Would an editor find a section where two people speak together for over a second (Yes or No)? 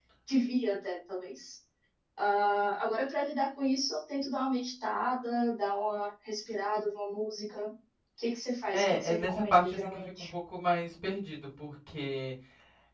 Yes